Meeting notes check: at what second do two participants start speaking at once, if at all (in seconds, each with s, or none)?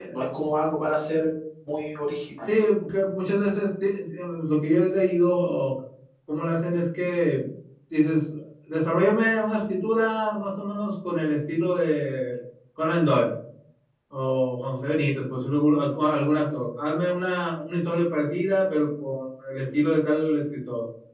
none